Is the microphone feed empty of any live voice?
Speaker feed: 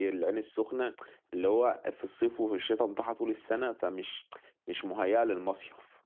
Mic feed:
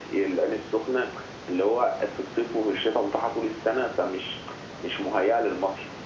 Yes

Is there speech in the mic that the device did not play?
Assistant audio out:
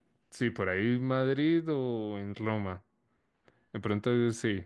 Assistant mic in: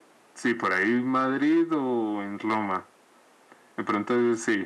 No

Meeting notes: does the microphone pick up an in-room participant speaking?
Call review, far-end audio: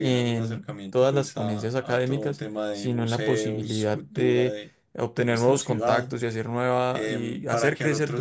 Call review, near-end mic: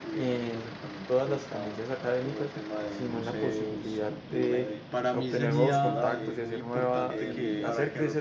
Yes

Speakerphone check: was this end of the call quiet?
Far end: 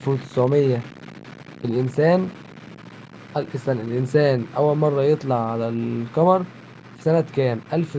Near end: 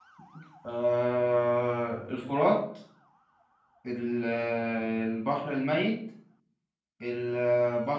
No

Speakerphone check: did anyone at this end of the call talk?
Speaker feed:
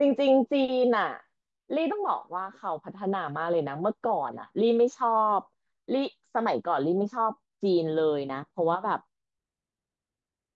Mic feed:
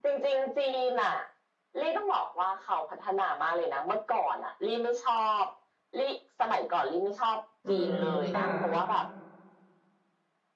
Yes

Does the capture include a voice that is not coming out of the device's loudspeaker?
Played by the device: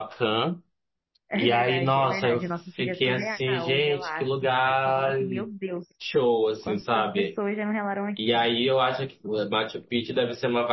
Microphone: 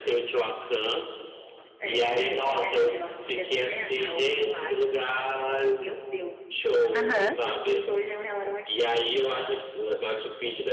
Yes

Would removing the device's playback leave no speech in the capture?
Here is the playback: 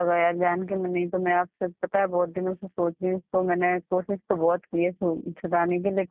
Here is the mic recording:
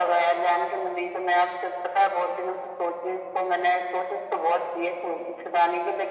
Yes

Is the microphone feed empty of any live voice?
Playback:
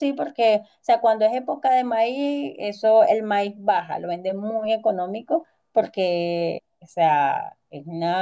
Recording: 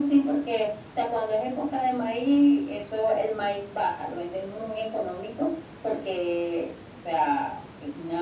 Yes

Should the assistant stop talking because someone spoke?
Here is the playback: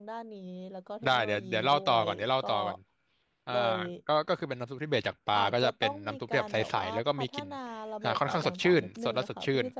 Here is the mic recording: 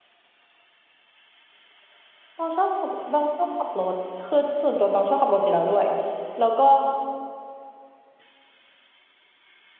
Yes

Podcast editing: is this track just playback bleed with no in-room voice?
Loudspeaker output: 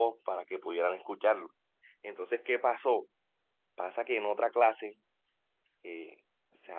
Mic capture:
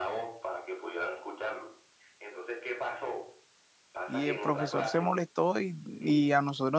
No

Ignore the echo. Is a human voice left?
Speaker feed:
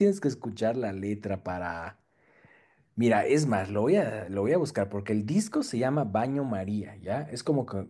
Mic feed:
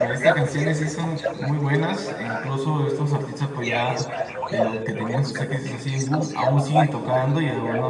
Yes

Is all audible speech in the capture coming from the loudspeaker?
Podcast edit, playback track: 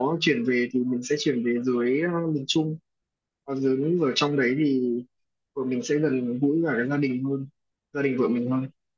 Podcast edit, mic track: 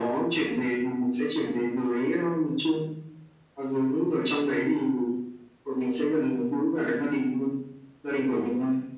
Yes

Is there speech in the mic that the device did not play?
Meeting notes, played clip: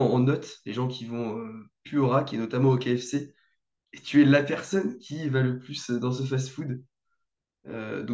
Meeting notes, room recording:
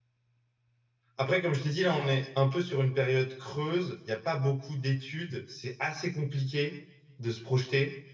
Yes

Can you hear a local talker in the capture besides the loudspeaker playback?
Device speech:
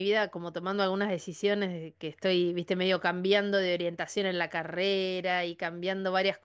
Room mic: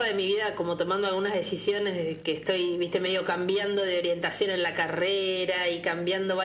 No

